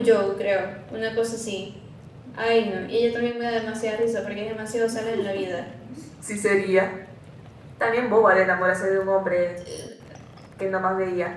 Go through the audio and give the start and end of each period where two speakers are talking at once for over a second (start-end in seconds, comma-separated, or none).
none